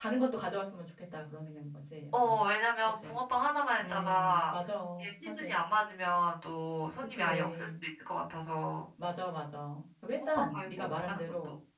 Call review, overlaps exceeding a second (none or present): present